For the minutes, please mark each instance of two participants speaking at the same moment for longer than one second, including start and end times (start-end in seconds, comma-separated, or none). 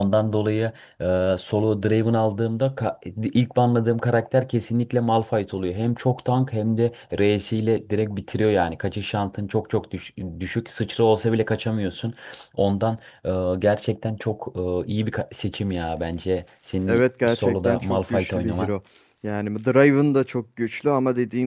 16.9-18.7